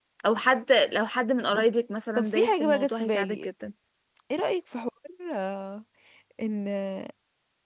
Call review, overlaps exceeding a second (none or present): present